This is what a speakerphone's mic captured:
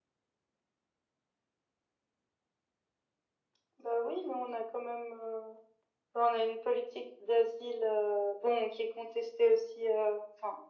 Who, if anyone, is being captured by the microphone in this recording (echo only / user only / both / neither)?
echo only